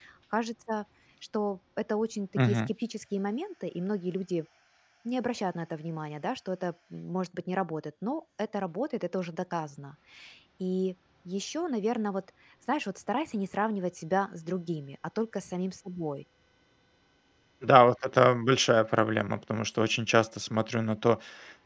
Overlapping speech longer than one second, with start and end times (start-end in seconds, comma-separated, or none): none